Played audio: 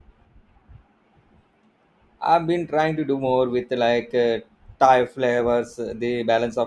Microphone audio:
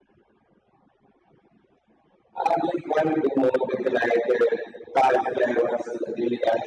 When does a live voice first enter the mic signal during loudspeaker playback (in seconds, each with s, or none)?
none